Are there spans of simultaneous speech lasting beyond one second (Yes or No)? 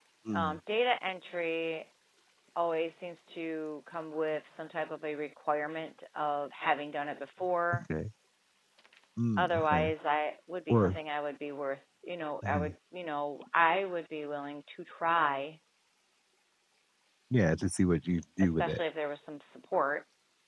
No